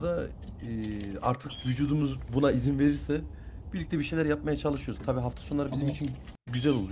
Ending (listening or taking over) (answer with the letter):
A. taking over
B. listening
B